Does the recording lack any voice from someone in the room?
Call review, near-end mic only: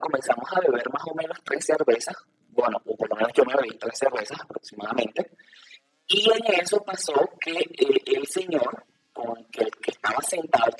Yes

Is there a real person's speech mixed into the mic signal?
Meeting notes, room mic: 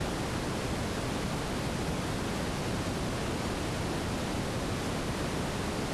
No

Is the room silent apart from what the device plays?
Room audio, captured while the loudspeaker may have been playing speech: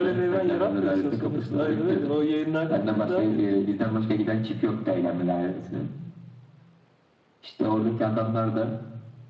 Yes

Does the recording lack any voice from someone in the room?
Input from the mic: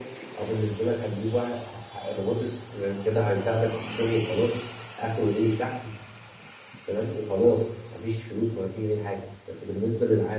Yes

